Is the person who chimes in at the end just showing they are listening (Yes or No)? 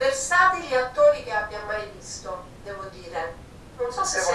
No